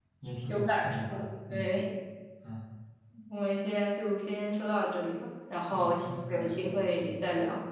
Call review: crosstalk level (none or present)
present